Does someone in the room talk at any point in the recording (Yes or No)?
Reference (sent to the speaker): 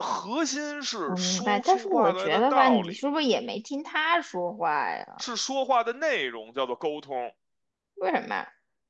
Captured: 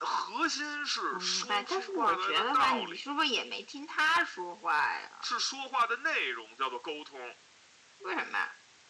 No